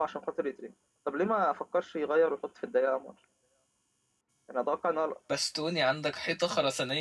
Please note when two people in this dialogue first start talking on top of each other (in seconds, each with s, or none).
none